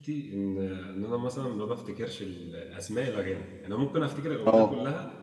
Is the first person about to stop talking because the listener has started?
No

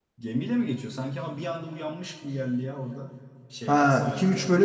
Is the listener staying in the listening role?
No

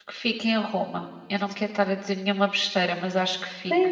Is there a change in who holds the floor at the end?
Yes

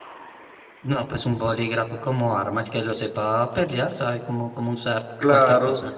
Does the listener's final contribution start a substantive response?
Yes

